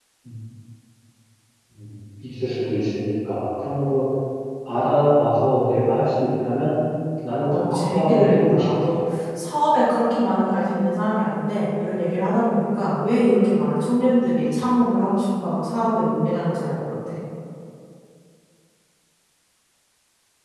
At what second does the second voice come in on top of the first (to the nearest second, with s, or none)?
8 s